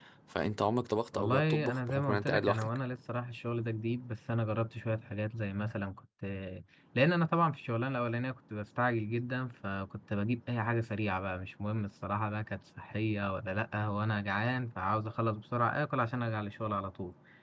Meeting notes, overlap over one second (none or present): present